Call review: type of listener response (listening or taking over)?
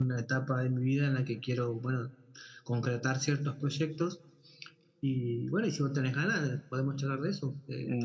taking over